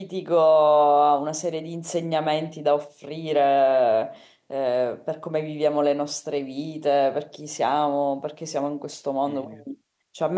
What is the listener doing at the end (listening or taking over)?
listening